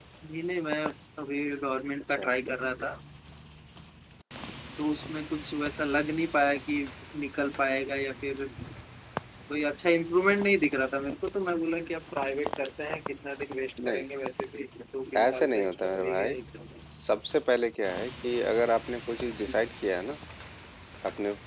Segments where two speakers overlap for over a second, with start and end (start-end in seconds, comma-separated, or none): 15.2-16.4